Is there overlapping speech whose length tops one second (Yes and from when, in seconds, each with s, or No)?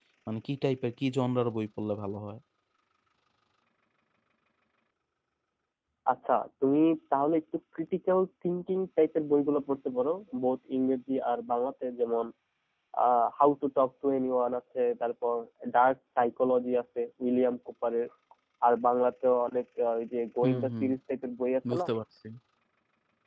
No